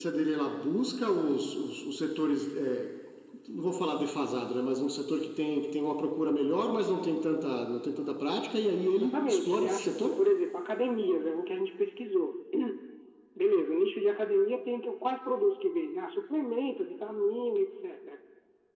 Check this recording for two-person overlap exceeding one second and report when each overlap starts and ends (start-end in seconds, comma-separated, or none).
8.9-10.1